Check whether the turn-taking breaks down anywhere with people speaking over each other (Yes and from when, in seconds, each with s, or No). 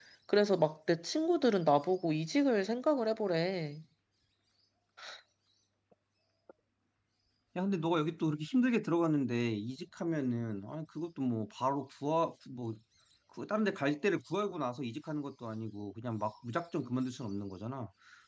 No